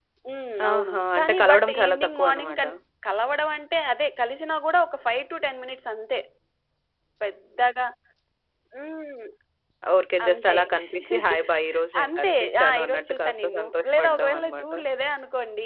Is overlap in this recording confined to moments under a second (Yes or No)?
No